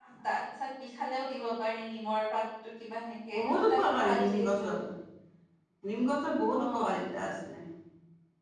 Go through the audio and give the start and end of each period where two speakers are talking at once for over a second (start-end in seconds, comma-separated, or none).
3.3-4.7